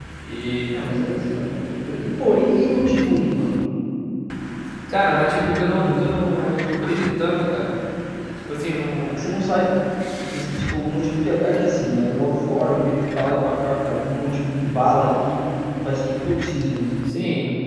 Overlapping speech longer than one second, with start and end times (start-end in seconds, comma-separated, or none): none